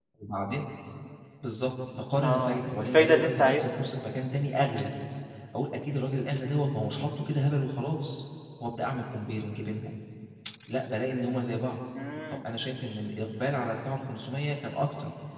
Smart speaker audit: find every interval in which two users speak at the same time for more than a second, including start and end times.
2.2-3.9

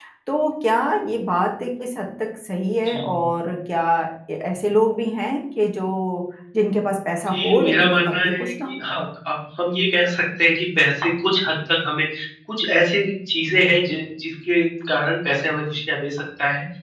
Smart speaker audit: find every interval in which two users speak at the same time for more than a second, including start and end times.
7.3-8.8

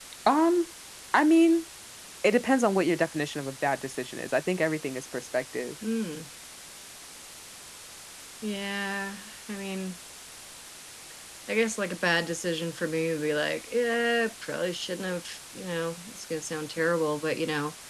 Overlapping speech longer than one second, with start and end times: none

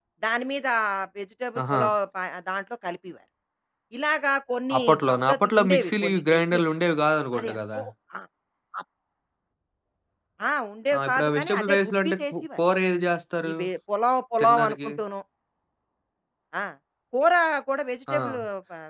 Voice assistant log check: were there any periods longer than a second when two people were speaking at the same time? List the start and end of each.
4.8-6.6, 11.0-12.6

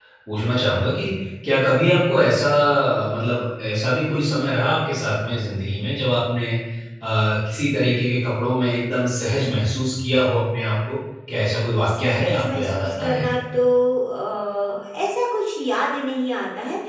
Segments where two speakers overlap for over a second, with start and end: 11.9-13.3

